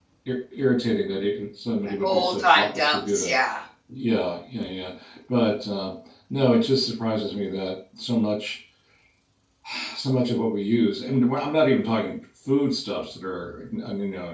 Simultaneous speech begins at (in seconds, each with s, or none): 2.0 s